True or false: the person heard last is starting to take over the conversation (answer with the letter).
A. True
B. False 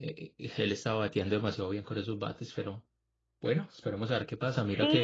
A